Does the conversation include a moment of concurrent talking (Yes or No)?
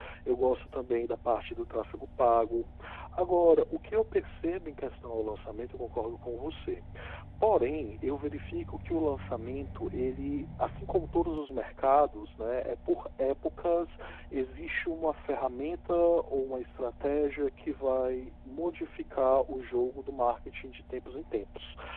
No